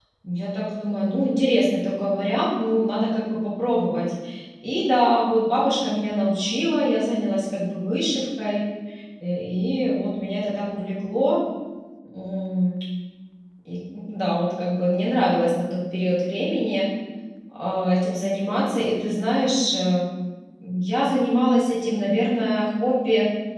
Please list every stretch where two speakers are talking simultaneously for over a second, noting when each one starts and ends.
none

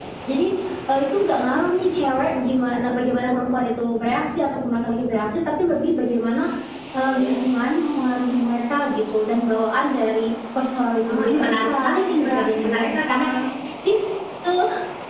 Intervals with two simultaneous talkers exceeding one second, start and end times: 11.1-13.2

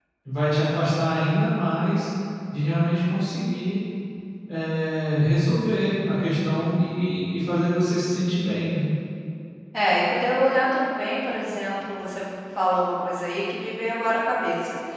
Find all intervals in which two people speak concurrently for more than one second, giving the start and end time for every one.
none

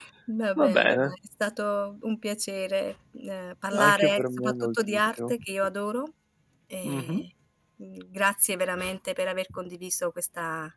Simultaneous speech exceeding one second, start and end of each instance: 3.8-5.3

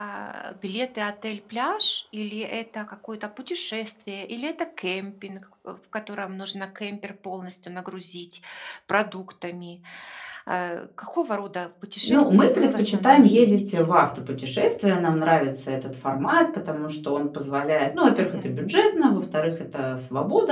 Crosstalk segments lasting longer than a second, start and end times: 12.0-13.9

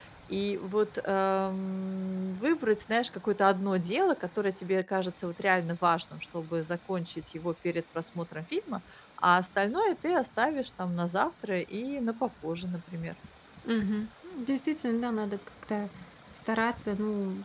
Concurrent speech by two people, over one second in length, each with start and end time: none

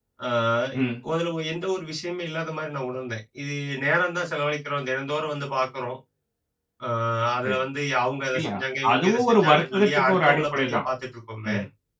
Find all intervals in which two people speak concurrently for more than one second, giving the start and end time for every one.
8.9-10.8

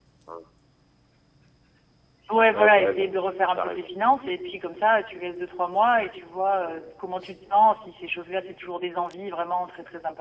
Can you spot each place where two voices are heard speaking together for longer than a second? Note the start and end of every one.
none

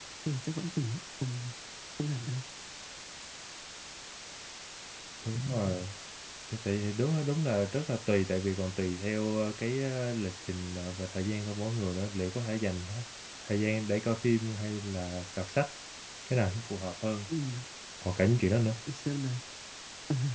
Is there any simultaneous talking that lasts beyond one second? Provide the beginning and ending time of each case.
none

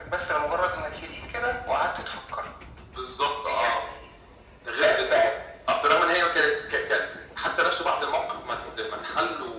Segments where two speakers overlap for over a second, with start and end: none

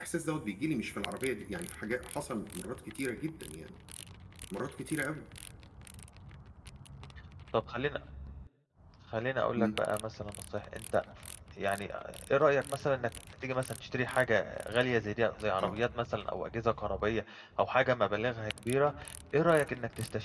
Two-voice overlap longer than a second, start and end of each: none

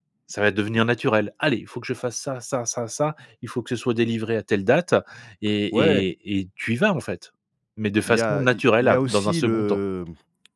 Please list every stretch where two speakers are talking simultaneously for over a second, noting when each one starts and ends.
8.1-9.8

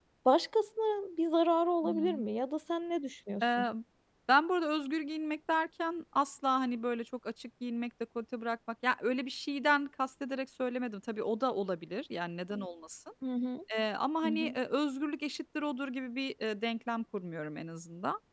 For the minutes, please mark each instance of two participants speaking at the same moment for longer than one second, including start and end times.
none

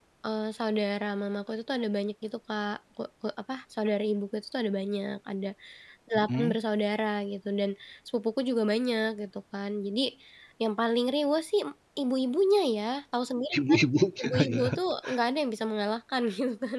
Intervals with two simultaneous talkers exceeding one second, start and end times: none

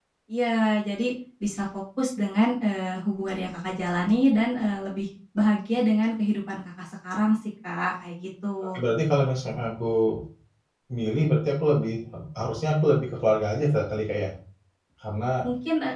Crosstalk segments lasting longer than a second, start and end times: none

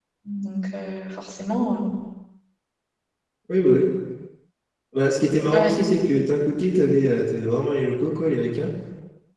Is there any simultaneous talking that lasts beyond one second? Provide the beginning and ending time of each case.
none

